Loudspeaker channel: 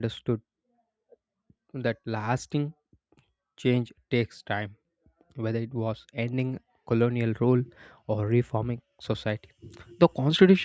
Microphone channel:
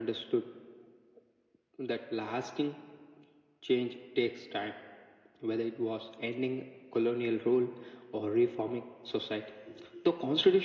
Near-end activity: none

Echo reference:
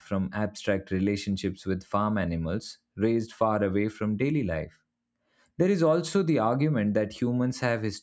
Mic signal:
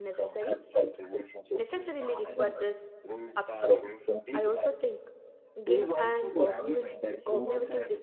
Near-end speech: present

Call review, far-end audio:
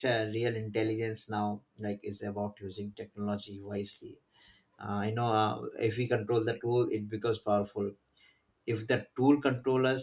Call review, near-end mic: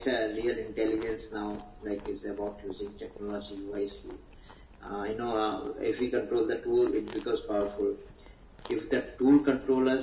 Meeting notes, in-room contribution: none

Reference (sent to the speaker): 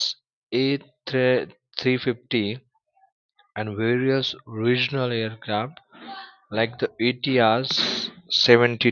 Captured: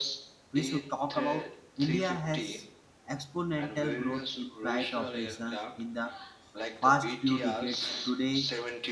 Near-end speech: present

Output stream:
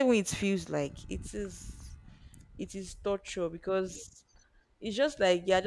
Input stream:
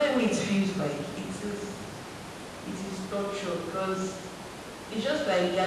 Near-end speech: none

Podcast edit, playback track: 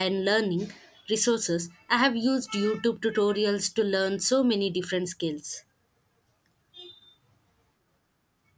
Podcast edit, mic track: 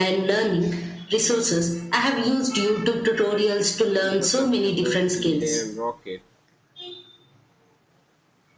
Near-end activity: present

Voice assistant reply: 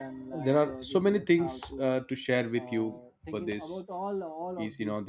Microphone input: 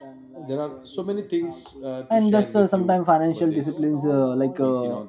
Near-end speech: present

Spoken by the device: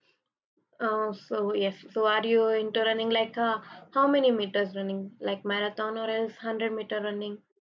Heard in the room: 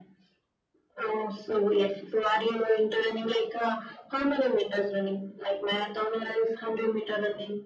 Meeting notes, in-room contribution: none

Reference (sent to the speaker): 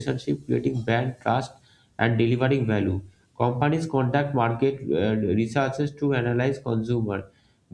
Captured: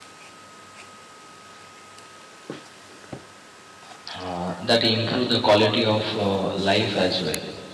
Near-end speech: present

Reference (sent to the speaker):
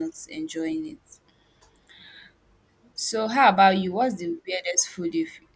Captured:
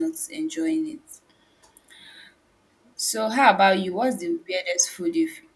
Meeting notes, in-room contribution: none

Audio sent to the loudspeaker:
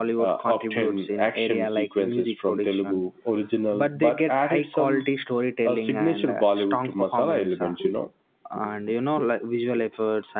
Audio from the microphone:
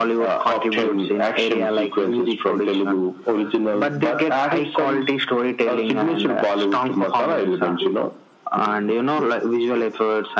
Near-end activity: none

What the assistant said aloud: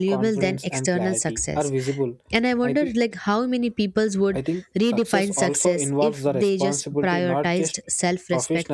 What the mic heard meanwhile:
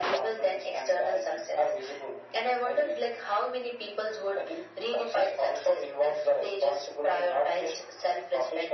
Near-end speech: none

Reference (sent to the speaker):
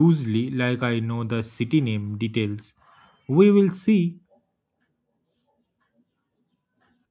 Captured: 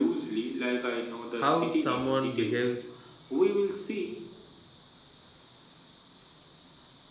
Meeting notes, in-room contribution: present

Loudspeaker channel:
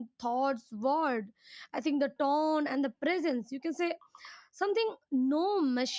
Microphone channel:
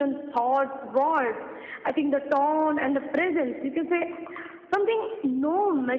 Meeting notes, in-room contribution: none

